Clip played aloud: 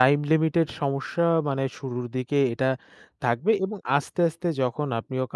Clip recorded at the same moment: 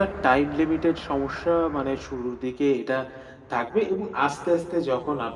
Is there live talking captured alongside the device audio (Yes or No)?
No